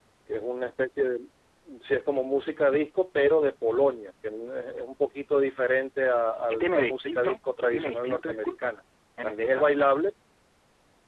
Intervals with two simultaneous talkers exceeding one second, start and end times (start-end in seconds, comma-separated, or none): 6.5-8.7